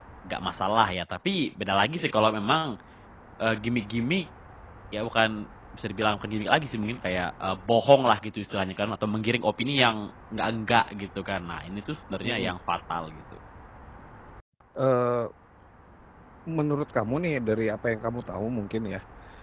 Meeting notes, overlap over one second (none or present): none